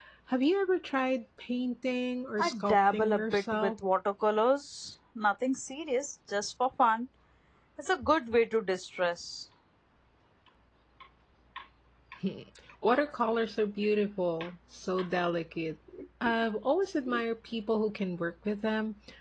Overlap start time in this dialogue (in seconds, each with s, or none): 2.4 s